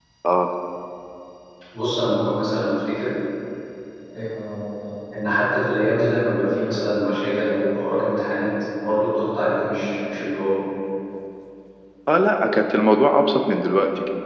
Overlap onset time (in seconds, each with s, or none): none